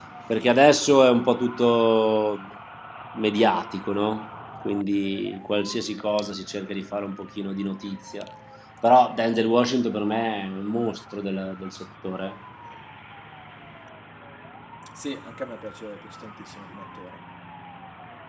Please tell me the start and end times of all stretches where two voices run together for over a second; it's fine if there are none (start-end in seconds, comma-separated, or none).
none